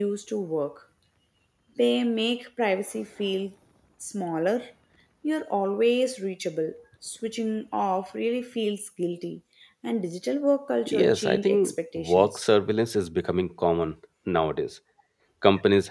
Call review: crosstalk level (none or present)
present